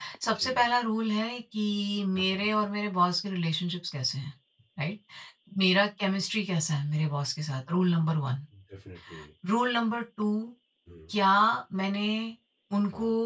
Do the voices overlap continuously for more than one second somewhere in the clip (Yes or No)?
No